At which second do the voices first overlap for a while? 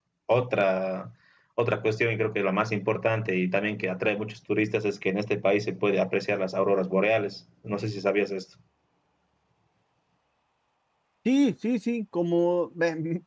none

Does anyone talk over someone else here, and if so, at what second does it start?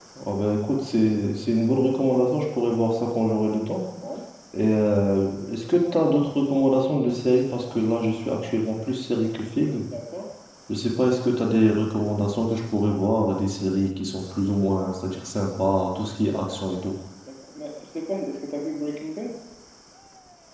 none

